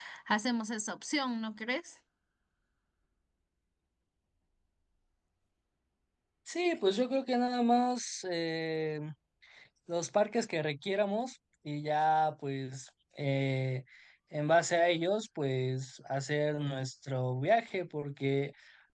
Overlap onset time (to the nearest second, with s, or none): none